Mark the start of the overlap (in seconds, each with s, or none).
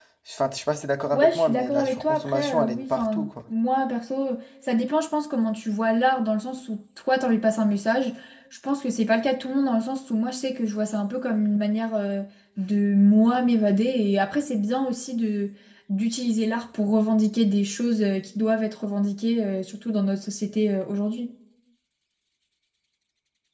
1.1 s